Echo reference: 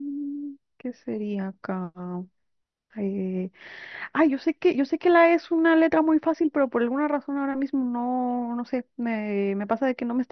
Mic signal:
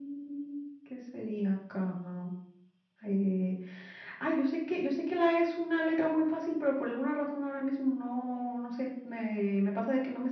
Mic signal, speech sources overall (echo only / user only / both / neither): echo only